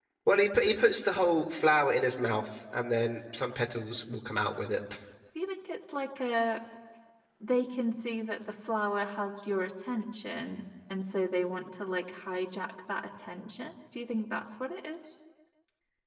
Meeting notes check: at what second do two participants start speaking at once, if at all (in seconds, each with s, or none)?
none